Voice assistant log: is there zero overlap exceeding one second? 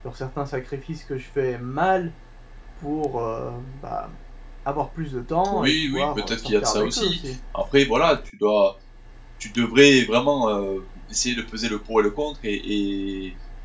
No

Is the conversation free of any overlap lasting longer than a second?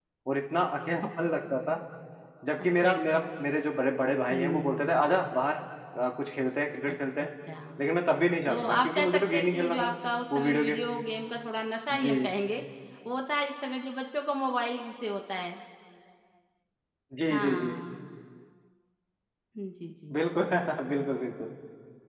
No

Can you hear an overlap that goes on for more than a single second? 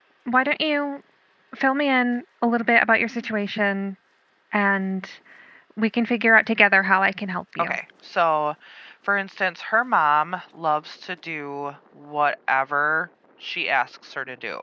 No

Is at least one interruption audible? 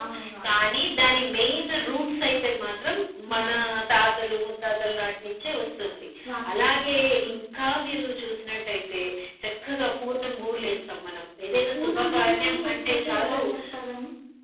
Yes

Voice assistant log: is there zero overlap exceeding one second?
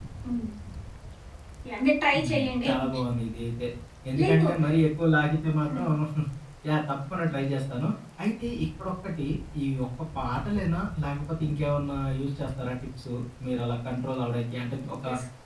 Yes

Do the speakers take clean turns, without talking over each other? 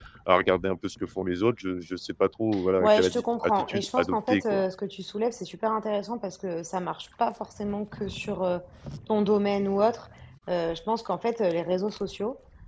No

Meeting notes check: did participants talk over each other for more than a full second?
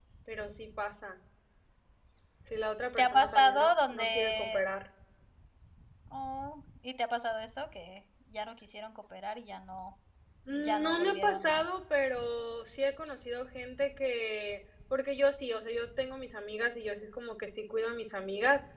Yes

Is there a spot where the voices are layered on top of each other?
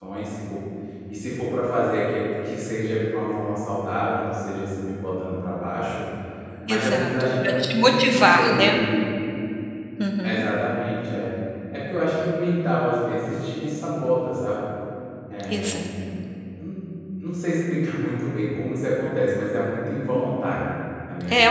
Yes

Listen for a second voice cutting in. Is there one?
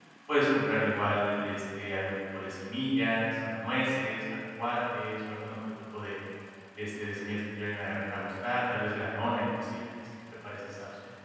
No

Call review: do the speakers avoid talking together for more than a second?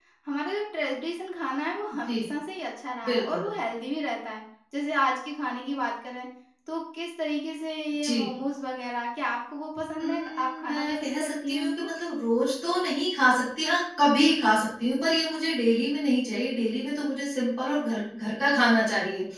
No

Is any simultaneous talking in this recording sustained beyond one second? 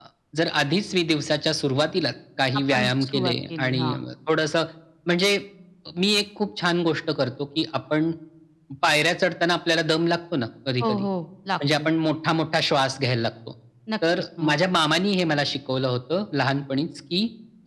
Yes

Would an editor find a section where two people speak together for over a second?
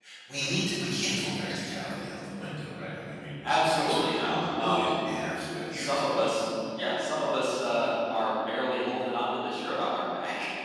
Yes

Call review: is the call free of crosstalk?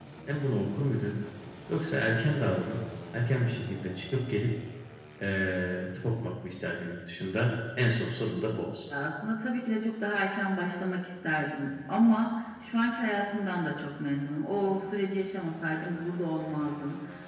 Yes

